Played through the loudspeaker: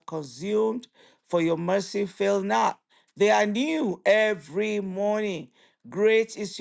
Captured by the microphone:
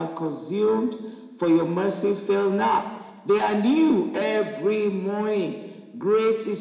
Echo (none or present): present